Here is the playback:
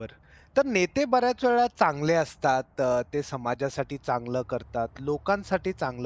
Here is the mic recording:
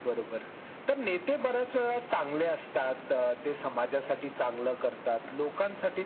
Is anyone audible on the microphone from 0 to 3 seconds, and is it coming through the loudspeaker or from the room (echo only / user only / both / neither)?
echo only